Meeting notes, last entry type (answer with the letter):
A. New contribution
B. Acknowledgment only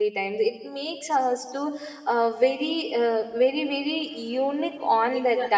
A